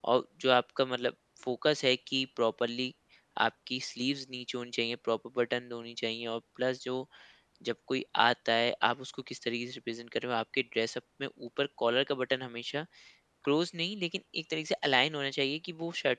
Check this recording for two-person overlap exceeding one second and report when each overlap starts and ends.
none

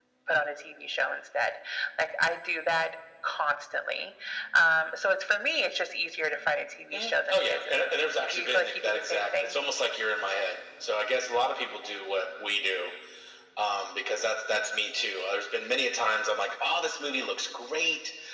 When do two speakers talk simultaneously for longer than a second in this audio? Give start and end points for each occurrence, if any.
6.9-9.6

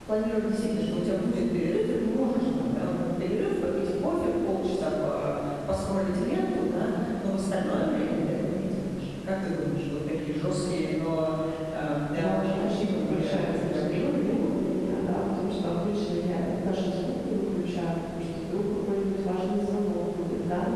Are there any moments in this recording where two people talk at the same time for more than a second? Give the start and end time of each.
12.1-14.4

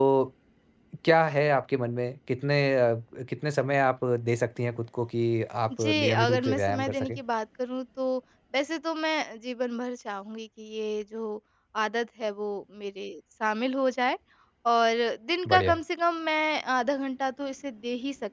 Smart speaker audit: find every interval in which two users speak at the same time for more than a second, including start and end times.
5.7-7.2

